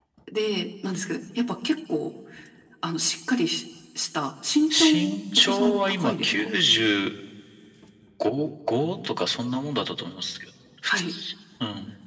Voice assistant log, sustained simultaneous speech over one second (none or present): present